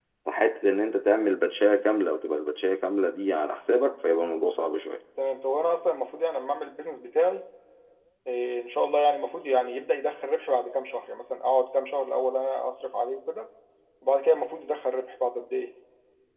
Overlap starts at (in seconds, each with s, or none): none